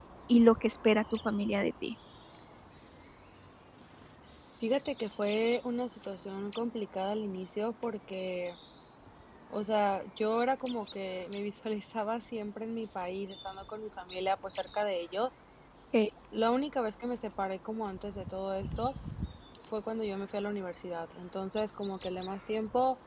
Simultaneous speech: No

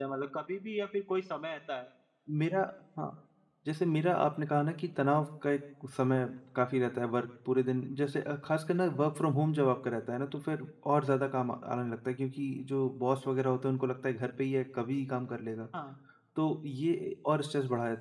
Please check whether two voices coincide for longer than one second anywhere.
No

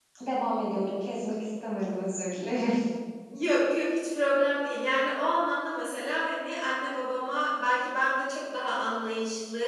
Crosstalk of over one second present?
No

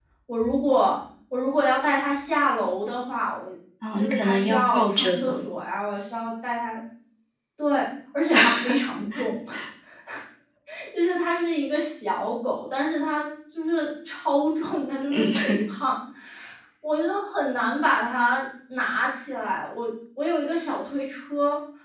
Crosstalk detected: Yes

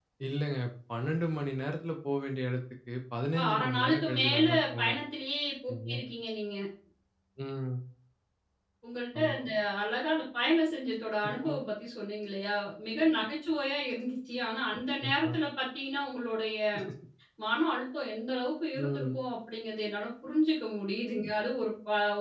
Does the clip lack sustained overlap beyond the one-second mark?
No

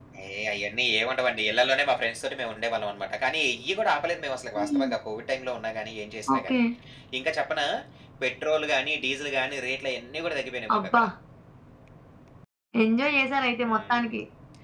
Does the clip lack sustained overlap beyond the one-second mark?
Yes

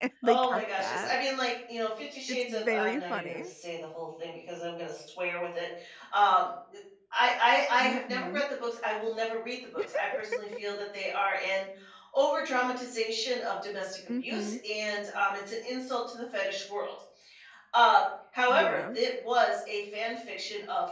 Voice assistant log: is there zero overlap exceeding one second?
No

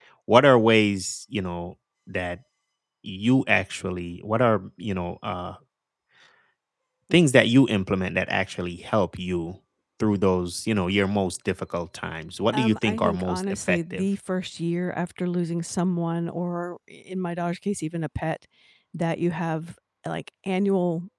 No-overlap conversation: No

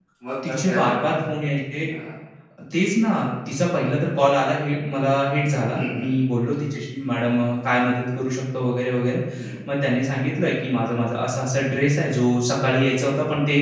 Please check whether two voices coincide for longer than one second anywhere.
No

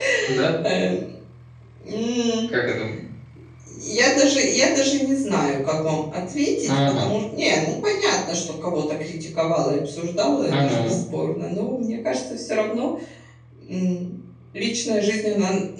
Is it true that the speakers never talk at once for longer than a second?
Yes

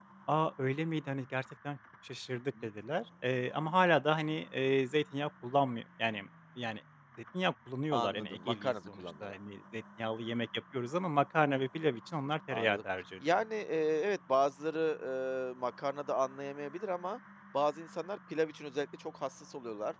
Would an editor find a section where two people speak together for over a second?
Yes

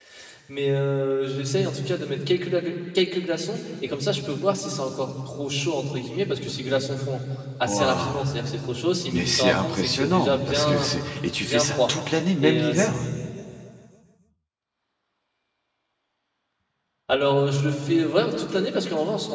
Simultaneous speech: Yes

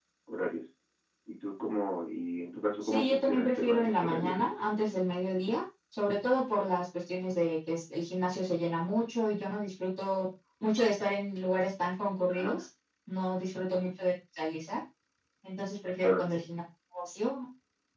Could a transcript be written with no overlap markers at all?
No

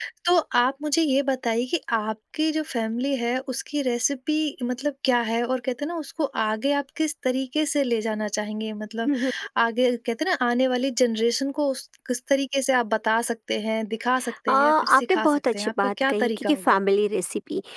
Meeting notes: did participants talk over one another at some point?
Yes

